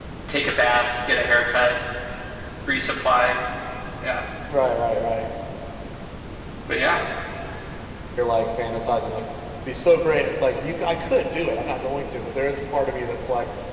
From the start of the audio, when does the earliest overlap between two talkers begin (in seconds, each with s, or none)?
none